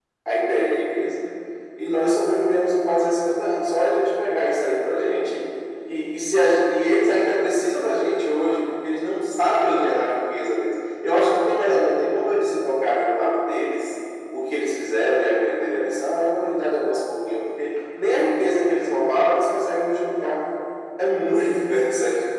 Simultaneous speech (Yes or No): No